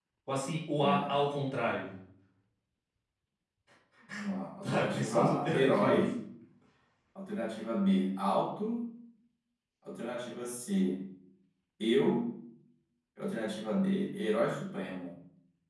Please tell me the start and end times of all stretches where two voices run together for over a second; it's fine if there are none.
4.6-6.0

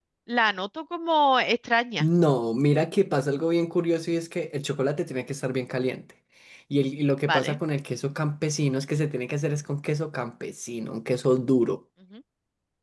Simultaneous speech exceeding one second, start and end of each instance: none

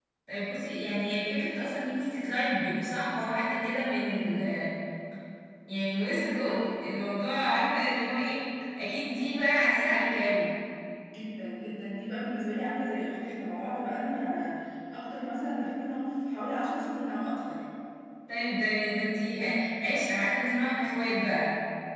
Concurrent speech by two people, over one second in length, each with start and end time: none

